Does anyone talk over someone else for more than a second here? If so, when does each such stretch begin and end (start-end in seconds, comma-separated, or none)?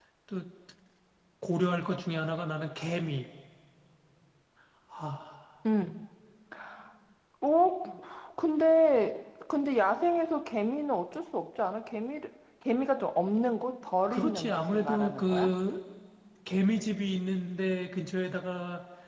14.1-15.5